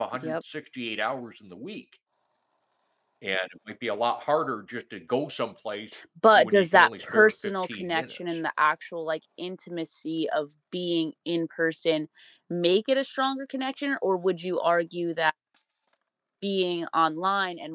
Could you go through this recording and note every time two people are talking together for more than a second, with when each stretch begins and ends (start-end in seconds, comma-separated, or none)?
6.4-8.4